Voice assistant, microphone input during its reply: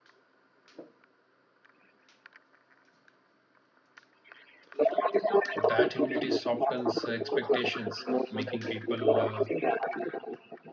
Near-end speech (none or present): present